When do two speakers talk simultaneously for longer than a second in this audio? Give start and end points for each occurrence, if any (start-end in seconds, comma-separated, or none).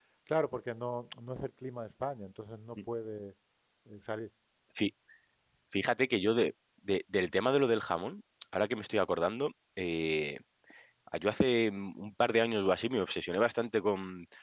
none